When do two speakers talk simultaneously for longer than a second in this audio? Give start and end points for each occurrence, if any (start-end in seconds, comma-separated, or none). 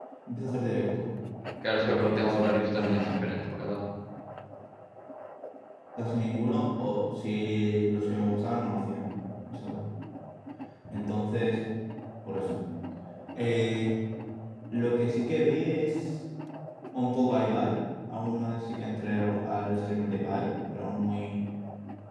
1.8-3.1